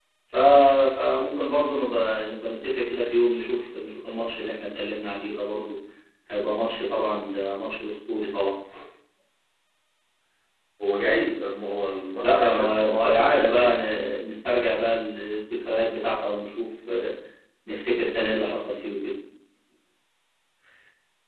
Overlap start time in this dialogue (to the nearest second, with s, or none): 12 s